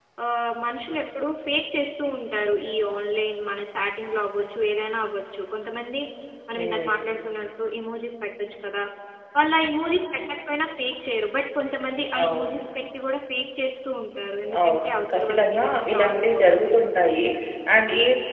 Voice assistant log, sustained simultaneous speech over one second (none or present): present